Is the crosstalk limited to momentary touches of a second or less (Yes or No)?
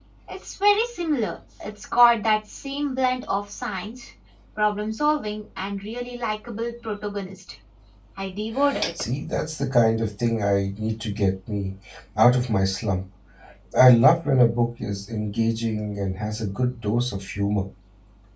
Yes